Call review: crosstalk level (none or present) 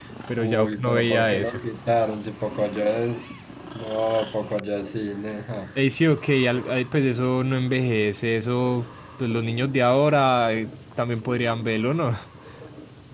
present